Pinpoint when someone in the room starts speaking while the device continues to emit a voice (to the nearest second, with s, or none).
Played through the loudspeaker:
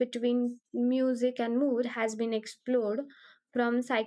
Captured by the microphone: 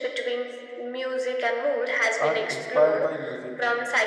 2 s